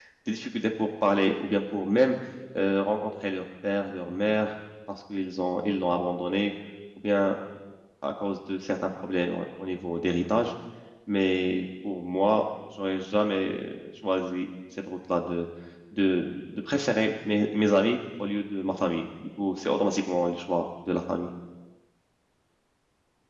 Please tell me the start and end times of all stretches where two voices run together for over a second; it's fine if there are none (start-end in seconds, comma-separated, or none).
none